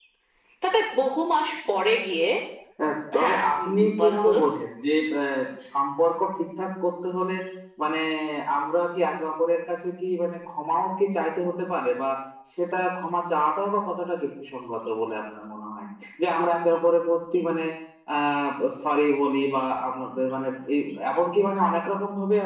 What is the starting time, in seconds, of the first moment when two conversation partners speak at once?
3 s

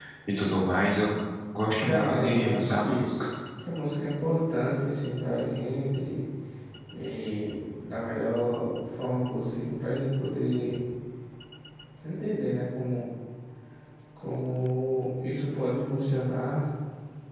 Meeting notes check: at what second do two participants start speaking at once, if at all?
2 s

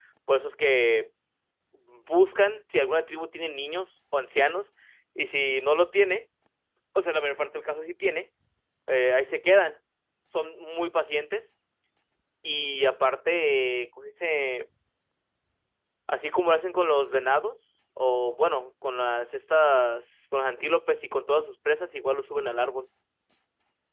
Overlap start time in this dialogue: none

